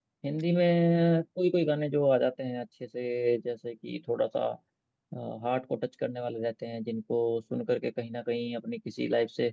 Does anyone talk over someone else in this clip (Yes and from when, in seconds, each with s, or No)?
No